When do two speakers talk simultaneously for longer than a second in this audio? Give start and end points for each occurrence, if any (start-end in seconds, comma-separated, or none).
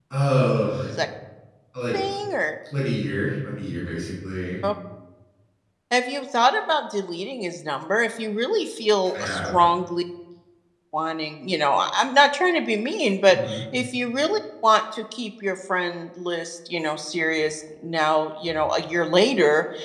none